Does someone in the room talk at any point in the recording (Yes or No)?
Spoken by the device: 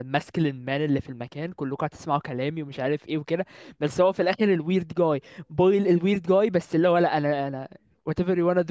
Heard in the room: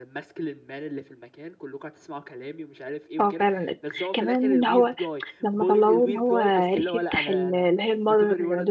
Yes